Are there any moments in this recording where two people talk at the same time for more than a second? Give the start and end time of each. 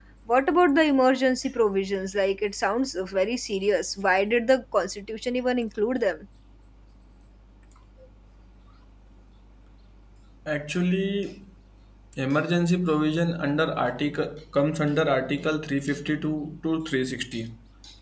none

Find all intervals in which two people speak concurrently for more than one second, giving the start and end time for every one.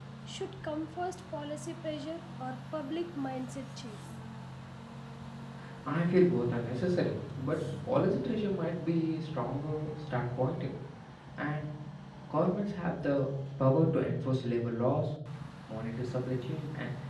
none

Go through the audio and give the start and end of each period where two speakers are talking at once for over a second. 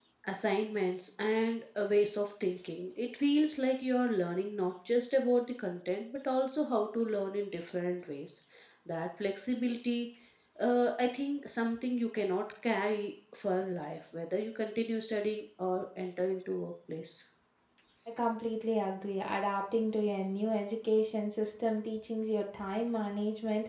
none

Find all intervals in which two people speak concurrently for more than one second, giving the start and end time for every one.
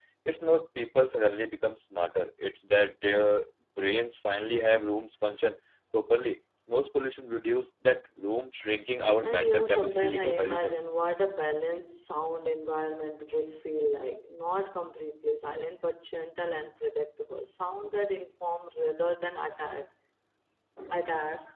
9.2-10.8

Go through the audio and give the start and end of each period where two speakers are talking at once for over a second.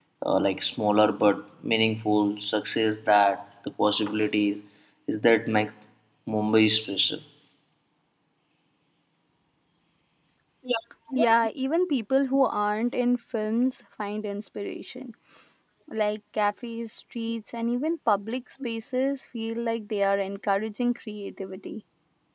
none

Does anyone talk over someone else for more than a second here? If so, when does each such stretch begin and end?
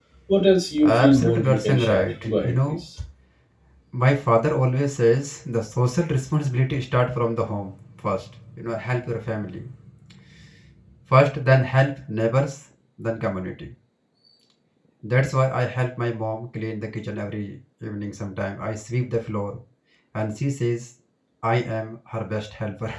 0.8-2.8

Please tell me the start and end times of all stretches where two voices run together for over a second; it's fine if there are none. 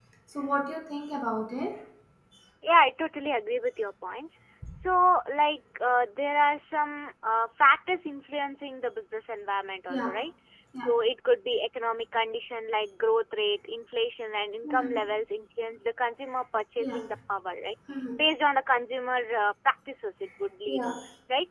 none

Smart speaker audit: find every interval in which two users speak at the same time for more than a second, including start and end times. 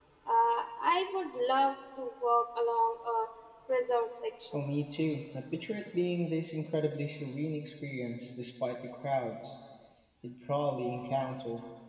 none

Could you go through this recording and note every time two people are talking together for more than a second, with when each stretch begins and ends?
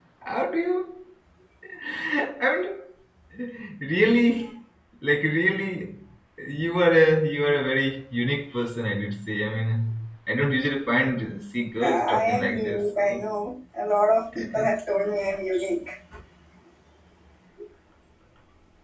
11.8-13.2

